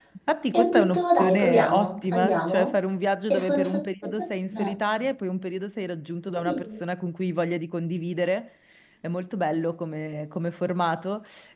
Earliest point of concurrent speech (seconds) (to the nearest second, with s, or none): 1 s